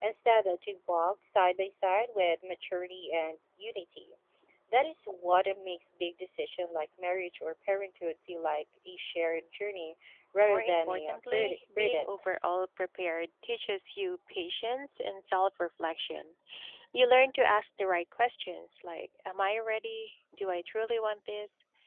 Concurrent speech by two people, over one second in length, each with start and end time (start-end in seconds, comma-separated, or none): 10.4-12.2